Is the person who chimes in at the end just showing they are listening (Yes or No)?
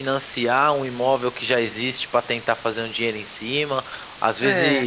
Yes